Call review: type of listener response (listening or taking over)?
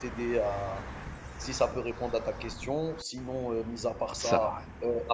listening